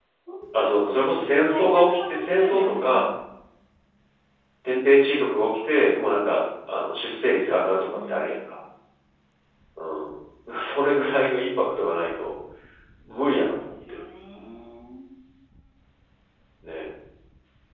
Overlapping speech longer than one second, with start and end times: 1.5-3.1

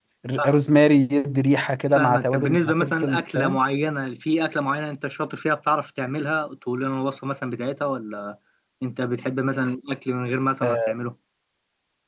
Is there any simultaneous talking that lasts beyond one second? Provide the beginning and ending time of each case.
1.9-3.6

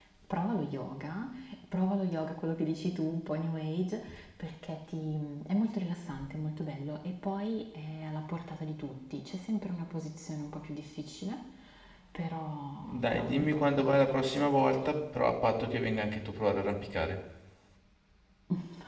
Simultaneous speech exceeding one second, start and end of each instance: 12.8-15.0

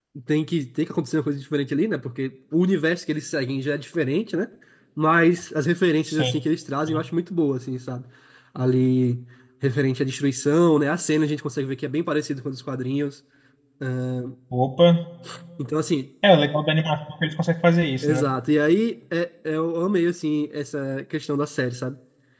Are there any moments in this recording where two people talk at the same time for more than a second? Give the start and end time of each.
none

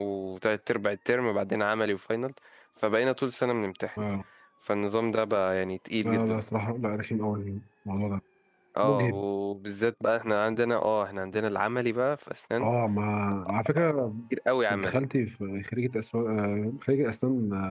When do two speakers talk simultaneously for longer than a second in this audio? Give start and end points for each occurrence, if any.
none

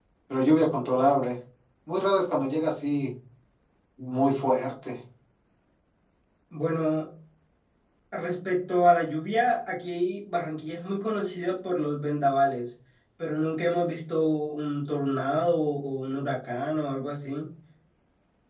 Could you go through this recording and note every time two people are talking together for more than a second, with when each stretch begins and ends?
none

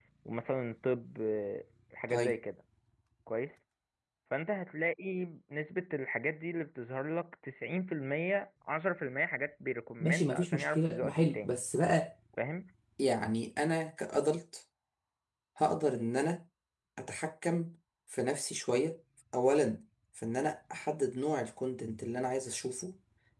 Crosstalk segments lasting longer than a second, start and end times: 10.0-11.6

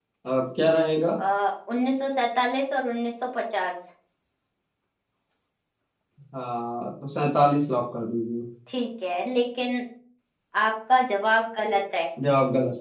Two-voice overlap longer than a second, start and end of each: none

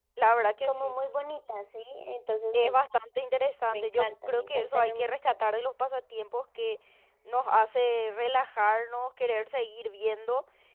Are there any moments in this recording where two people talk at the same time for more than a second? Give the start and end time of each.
3.7-5.4

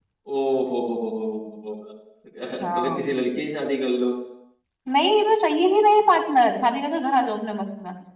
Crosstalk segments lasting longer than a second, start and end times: none

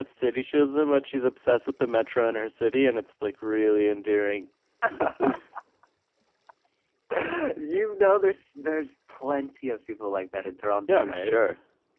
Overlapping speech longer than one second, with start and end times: none

